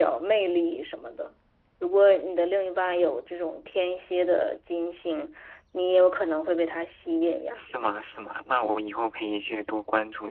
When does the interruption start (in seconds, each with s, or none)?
none